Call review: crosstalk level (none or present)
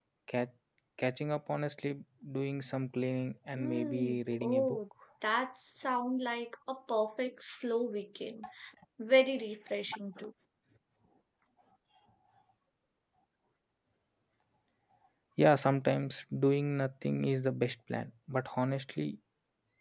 present